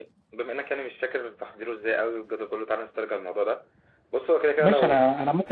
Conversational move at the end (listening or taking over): taking over